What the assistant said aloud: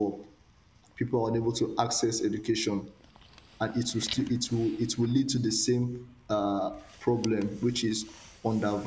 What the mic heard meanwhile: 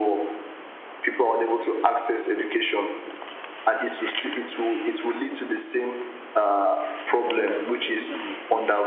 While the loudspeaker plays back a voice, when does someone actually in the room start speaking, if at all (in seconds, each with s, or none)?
7.1 s